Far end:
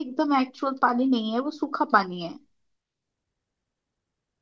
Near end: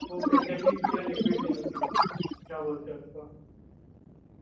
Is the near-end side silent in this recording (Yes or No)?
No